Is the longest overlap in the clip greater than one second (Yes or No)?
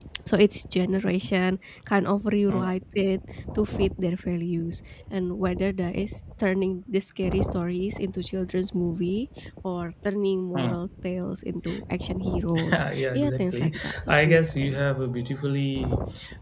Yes